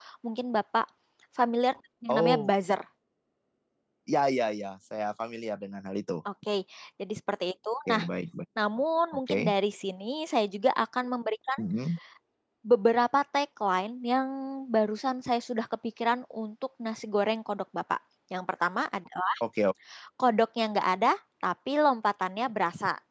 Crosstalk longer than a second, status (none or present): none